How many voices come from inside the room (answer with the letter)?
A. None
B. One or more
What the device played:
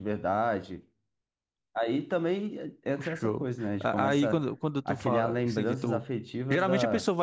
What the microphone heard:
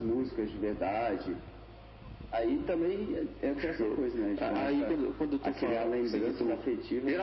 A